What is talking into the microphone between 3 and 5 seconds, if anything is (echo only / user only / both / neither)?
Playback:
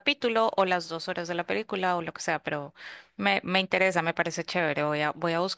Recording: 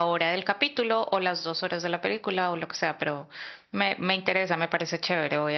echo only